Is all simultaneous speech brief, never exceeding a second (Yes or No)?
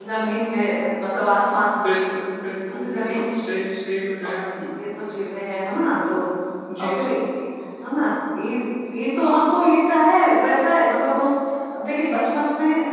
Yes